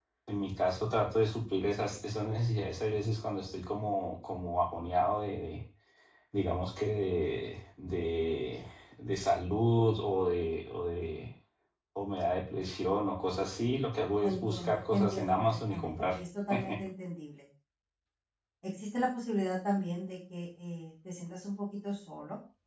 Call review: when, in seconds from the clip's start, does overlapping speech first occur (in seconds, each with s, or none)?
14.2 s